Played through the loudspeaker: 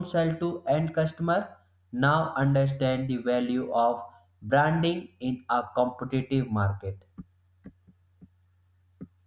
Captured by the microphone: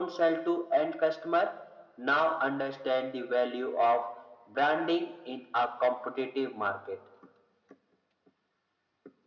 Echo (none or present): present